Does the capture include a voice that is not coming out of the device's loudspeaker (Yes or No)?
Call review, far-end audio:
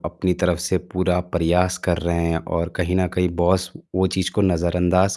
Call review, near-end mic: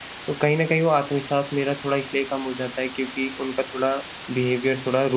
Yes